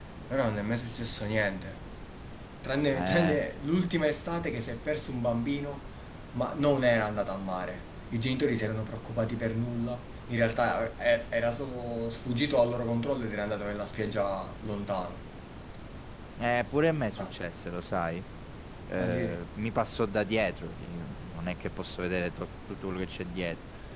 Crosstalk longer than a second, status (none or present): none